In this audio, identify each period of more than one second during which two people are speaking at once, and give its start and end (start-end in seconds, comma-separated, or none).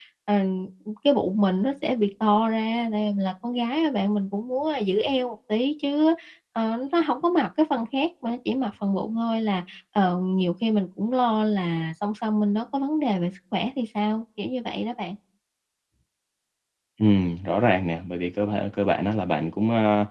none